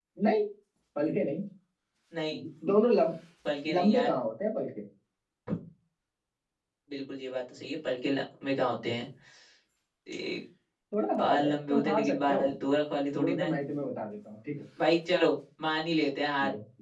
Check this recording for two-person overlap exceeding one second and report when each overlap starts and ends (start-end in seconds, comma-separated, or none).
11.2-12.4